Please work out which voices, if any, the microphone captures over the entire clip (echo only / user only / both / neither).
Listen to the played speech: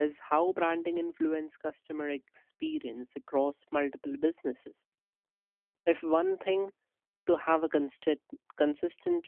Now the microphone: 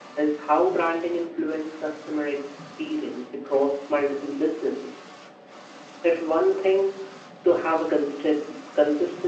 echo only